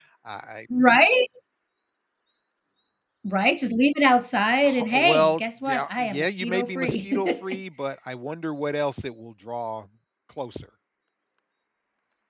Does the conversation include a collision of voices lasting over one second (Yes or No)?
Yes